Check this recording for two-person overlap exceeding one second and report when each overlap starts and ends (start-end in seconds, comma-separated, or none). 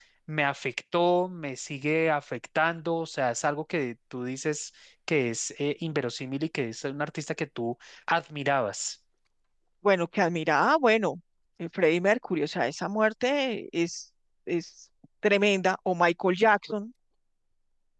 none